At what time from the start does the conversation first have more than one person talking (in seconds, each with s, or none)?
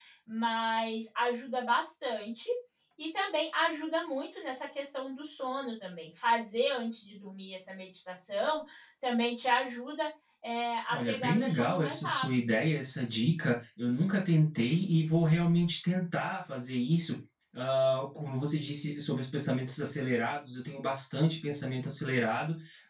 10.9 s